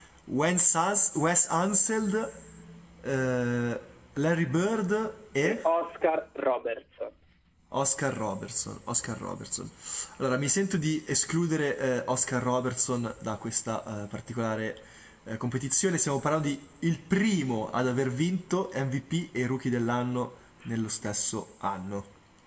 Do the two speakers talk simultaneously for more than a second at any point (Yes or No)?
No